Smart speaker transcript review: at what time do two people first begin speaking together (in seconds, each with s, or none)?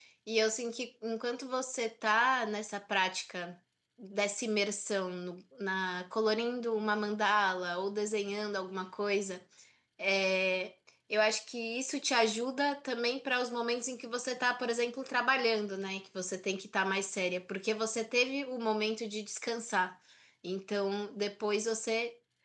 none